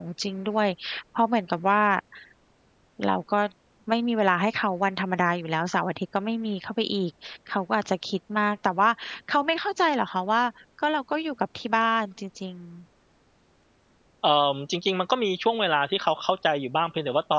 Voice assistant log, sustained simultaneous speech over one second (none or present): none